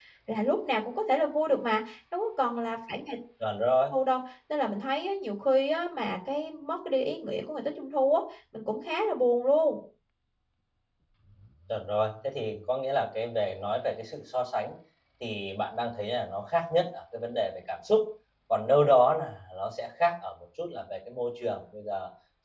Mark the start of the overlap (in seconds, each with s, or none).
none